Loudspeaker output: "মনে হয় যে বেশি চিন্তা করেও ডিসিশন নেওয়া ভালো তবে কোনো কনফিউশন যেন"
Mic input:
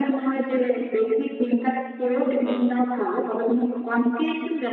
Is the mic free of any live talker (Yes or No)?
No